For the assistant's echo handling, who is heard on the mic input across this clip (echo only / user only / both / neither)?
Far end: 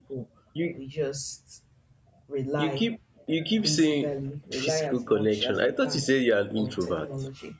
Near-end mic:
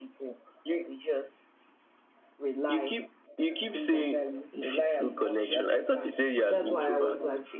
both